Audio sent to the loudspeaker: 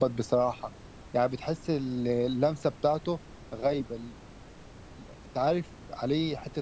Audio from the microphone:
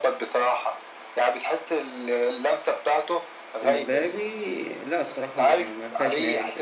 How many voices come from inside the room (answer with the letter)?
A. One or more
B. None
A